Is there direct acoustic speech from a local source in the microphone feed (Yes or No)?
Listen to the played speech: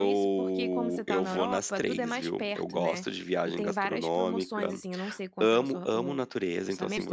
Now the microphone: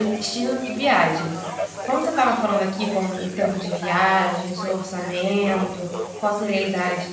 Yes